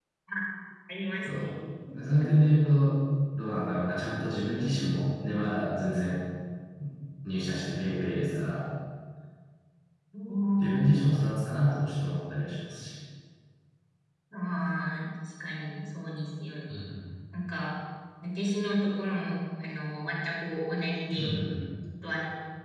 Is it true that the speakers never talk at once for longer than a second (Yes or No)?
Yes